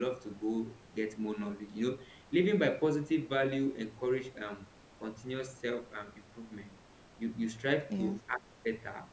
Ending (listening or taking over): listening